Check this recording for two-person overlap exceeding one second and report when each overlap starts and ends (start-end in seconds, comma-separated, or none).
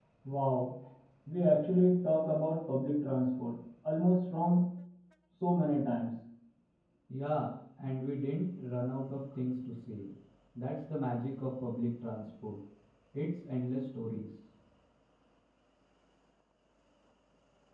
none